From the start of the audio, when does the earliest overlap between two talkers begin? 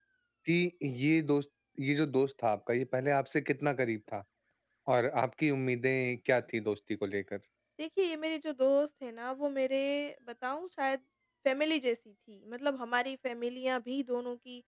none

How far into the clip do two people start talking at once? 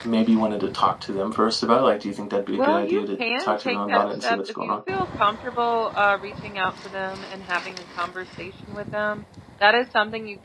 2.5 s

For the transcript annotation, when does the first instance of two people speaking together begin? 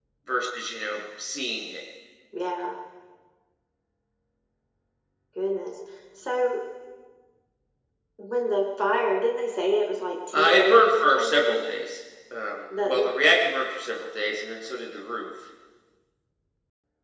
10.3 s

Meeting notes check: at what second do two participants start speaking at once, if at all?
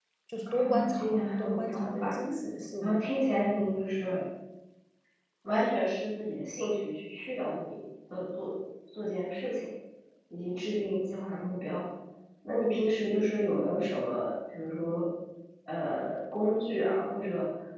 0.5 s

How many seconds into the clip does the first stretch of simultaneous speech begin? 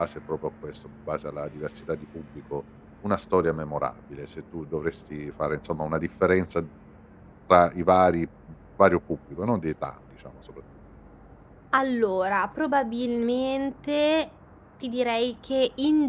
none

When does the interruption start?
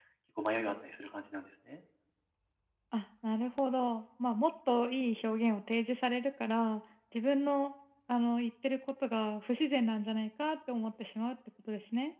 none

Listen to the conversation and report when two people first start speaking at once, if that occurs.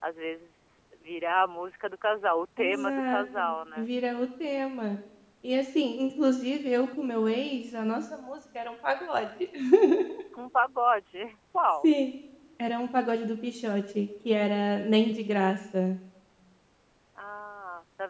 2.6 s

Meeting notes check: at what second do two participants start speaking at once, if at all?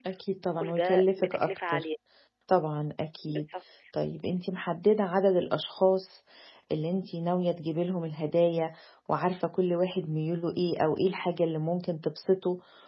0.6 s

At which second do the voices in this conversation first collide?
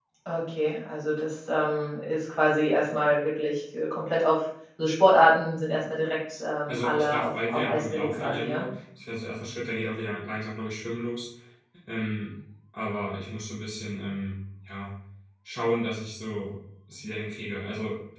6.7 s

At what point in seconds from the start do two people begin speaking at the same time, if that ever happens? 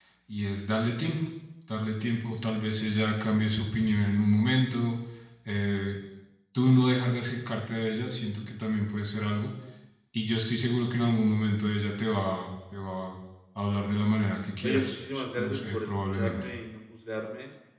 14.6 s

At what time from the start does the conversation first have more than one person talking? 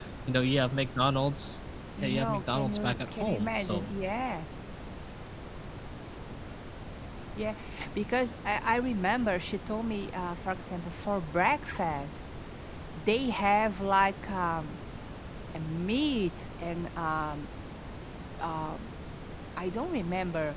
2.0 s

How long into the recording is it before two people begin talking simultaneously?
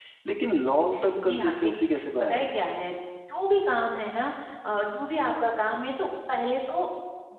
1.2 s

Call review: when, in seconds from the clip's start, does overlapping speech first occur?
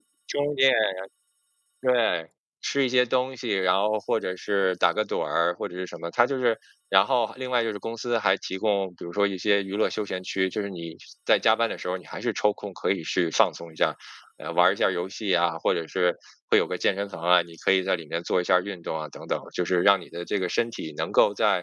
none

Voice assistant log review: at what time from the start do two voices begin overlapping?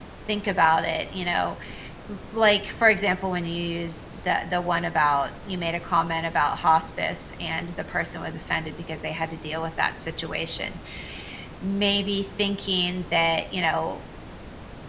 none

